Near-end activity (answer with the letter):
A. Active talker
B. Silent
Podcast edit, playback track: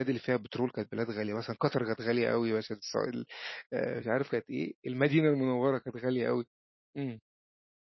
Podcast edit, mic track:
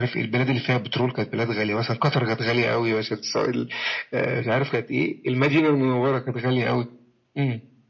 B